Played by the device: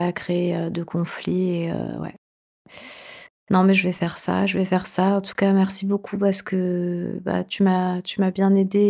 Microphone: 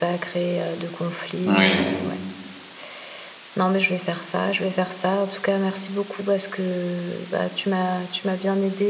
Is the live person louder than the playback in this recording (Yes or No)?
Yes